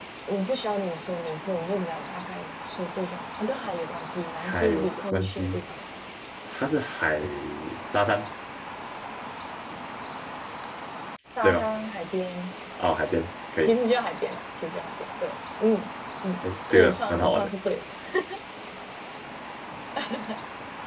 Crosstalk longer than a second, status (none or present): present